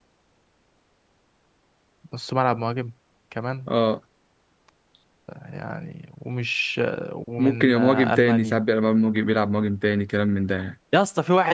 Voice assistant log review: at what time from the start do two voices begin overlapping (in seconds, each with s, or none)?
7.4 s